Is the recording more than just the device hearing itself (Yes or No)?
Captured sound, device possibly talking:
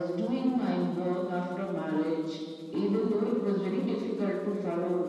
No